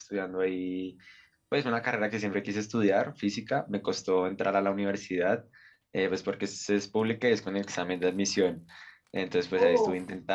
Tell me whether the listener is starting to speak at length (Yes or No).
No